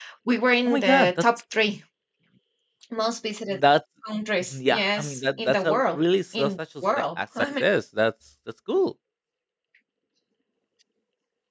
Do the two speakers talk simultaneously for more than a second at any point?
Yes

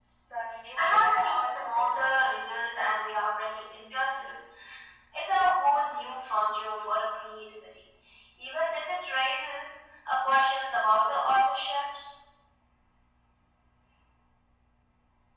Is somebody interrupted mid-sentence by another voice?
Yes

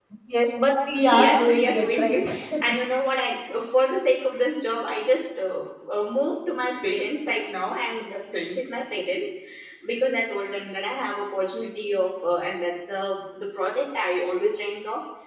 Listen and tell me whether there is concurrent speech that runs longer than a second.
Yes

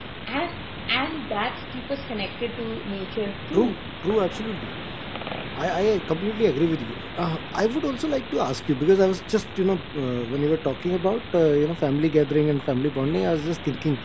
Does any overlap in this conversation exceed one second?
No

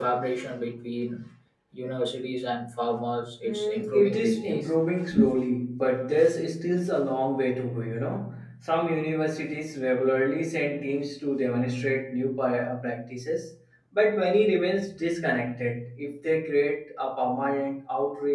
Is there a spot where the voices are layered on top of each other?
Yes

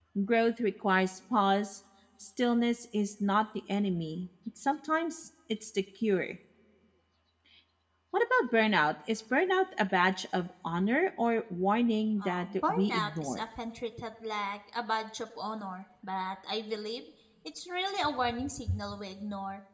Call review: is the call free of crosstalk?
No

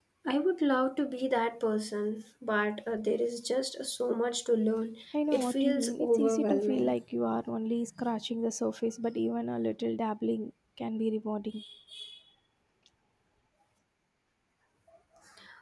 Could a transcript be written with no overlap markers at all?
No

